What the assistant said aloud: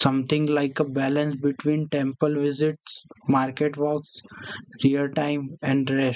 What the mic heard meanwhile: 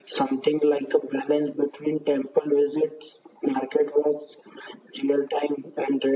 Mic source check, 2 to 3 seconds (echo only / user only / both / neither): echo only